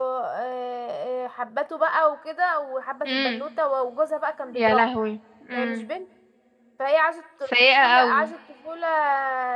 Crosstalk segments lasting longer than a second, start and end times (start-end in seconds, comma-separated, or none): none